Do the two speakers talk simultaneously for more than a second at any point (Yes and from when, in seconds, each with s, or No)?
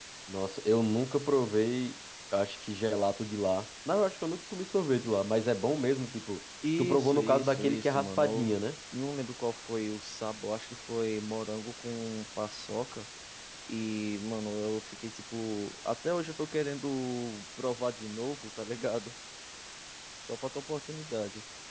Yes, from 6.6 s